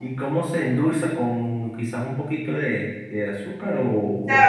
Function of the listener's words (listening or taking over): taking over